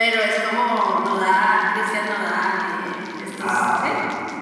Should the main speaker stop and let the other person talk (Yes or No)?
Yes